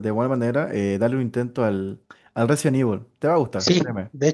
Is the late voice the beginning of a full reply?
Yes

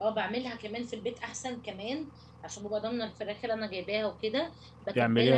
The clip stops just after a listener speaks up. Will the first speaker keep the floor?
Yes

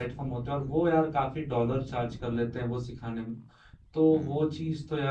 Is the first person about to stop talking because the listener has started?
No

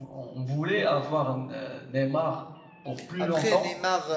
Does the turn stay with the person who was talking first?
No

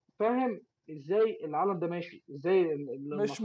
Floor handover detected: Yes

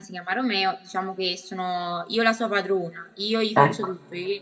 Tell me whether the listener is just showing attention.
Yes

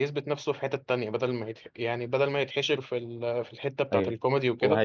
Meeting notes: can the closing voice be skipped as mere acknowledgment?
No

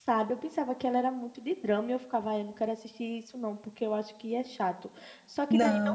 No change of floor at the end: Yes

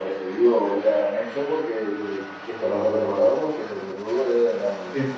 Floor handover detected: Yes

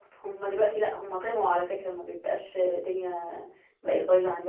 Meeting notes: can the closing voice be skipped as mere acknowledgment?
Yes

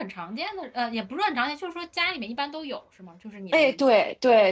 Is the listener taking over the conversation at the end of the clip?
Yes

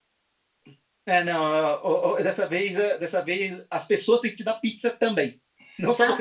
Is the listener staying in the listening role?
No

